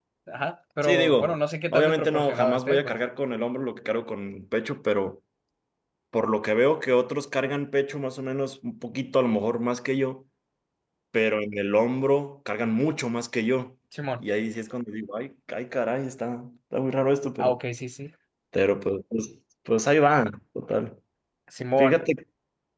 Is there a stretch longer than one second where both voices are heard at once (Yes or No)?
Yes